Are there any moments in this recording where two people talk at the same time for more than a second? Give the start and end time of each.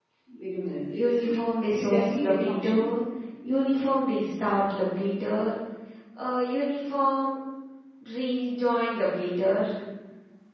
1.7-2.9

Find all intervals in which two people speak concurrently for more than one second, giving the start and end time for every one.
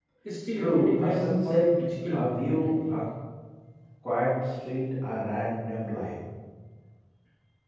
0.6-3.0

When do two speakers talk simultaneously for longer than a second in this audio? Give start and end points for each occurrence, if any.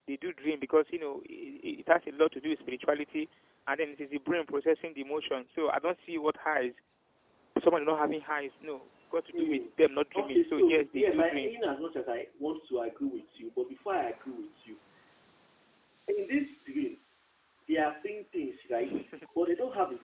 10.1-11.5

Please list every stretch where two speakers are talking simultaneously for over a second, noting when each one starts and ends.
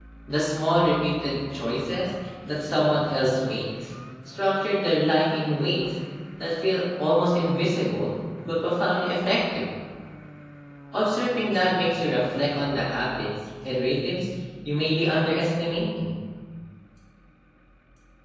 none

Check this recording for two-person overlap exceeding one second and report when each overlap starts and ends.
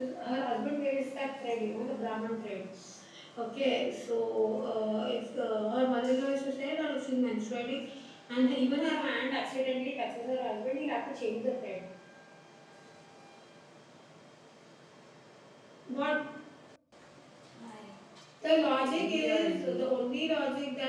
18.6-19.8

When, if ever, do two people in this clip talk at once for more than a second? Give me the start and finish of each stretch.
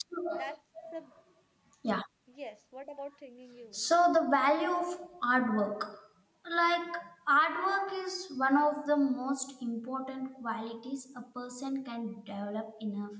none

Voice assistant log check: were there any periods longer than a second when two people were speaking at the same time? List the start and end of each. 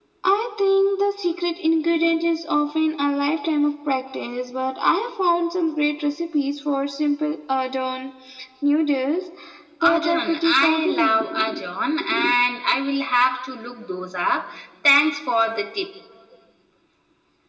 9.8-11.6

